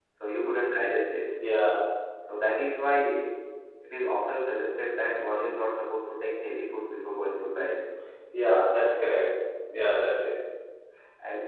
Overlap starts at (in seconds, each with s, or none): none